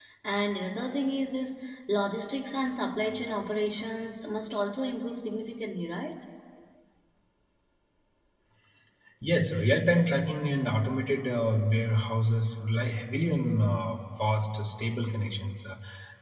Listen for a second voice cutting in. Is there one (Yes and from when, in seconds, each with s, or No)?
No